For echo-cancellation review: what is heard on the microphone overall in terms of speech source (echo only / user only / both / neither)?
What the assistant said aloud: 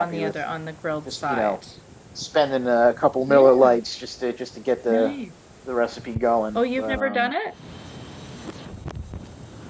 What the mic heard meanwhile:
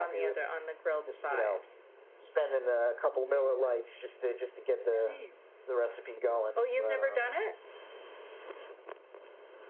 echo only